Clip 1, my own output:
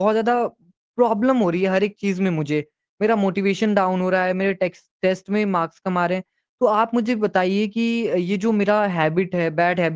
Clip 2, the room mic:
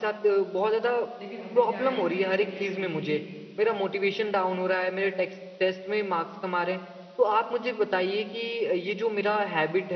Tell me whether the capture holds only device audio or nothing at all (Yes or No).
No